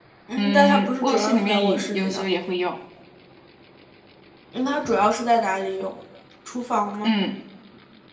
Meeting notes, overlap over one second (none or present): present